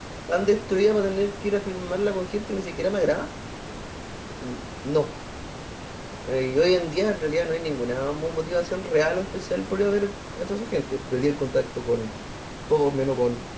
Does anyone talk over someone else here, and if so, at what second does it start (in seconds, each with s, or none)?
none